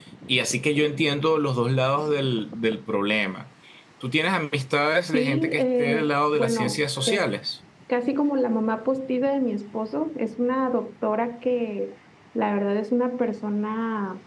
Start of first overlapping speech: 5.1 s

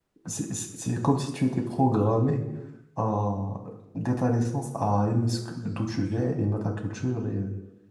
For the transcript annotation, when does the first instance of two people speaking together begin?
none

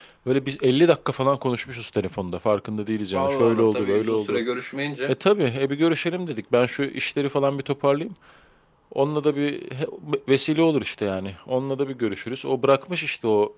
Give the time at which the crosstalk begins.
3.1 s

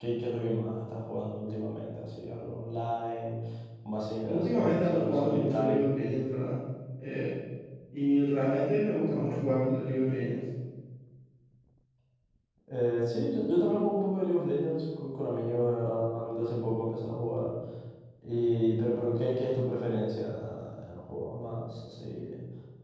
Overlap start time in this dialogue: 4.2 s

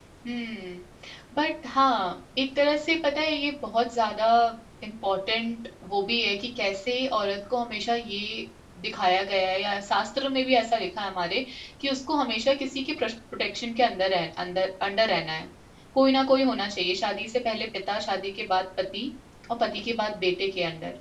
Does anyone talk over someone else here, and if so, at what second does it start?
none

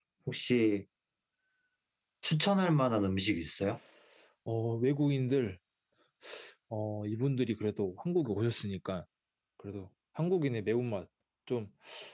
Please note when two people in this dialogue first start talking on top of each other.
none

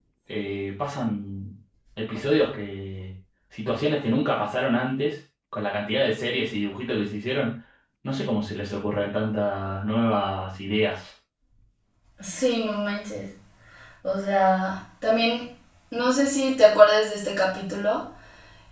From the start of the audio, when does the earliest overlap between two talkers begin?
none

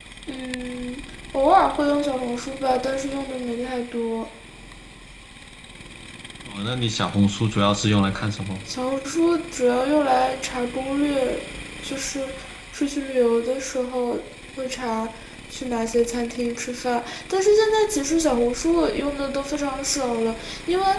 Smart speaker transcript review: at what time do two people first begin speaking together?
none

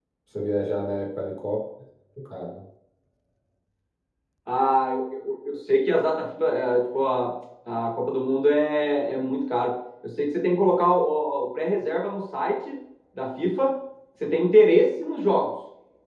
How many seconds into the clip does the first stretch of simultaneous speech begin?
none

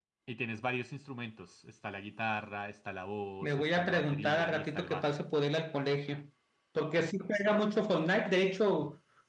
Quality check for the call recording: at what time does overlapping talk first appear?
3.4 s

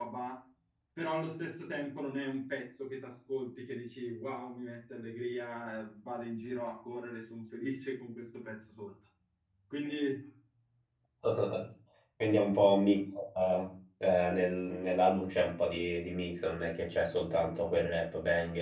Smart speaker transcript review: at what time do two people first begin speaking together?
none

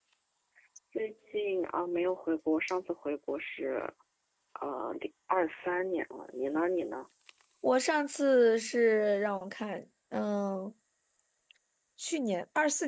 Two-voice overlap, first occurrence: none

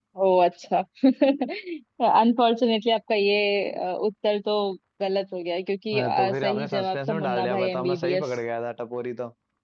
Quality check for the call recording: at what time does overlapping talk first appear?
5.9 s

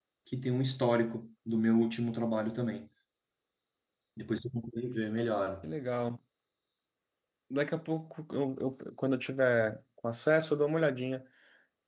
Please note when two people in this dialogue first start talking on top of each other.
none

